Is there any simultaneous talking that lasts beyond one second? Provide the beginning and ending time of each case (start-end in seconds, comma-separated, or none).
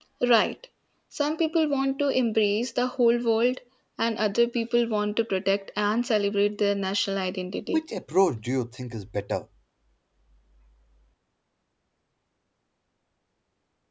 none